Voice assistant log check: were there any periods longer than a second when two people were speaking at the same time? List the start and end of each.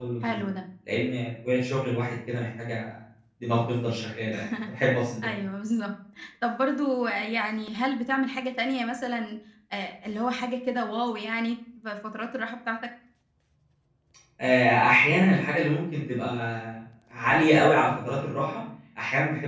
none

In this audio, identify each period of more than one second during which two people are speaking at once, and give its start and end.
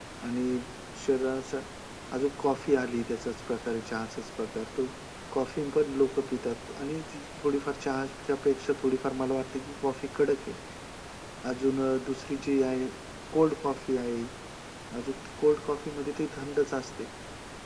none

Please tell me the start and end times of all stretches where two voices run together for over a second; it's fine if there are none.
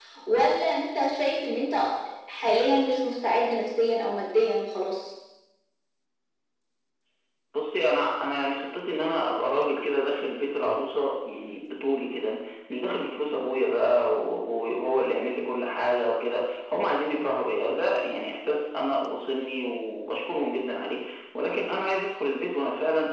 none

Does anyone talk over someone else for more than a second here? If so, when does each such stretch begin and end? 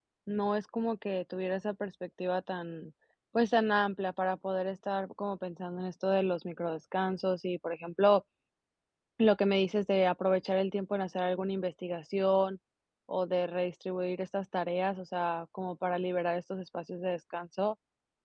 none

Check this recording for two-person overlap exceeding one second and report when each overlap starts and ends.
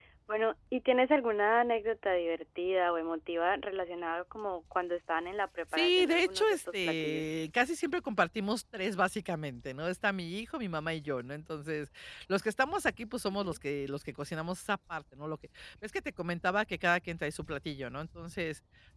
5.7-7.2

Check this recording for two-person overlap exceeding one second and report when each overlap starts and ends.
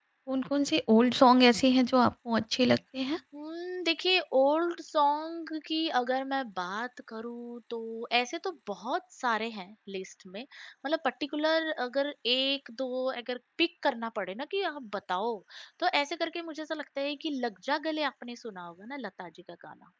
none

